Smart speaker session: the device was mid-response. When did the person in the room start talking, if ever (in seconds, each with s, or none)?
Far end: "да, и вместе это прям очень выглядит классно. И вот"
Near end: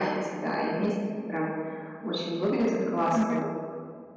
3.1 s